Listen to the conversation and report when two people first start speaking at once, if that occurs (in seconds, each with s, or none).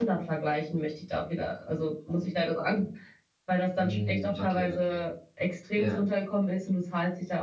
3.8 s